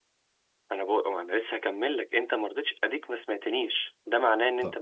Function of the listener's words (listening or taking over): listening